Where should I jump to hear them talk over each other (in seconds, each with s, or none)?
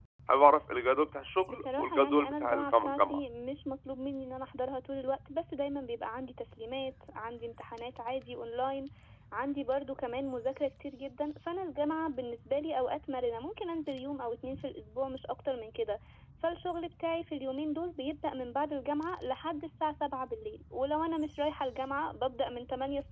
1.5 s